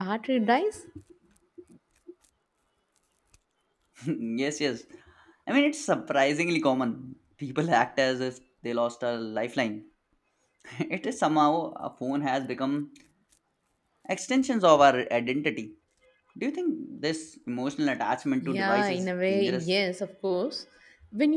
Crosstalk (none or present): present